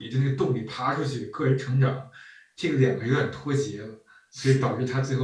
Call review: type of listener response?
listening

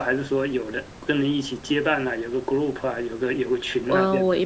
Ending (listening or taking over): taking over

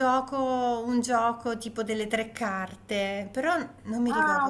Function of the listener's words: taking over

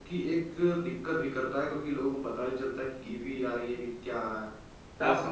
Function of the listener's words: taking over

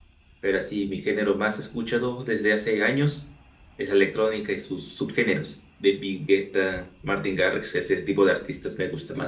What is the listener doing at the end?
taking over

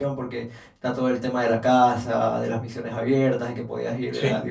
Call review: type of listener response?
listening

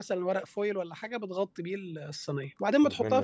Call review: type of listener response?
listening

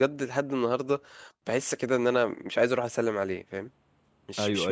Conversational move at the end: taking over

